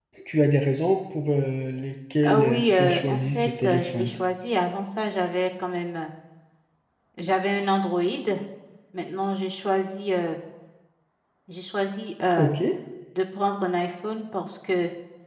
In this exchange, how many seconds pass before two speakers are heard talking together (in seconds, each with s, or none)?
2.2 s